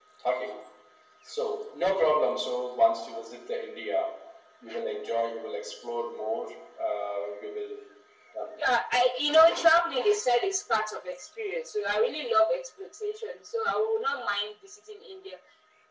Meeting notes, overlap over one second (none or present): none